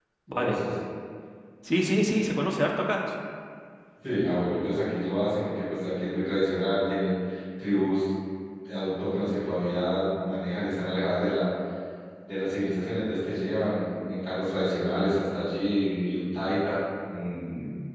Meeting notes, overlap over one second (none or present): none